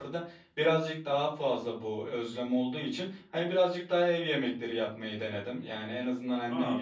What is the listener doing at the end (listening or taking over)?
listening